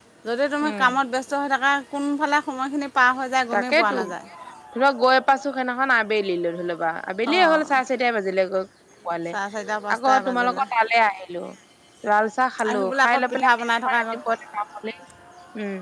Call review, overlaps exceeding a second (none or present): present